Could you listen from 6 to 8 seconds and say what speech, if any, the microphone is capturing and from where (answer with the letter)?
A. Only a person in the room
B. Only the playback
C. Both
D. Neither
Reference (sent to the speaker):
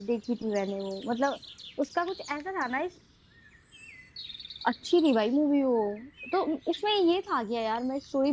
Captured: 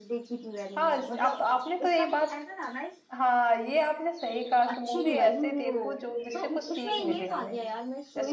C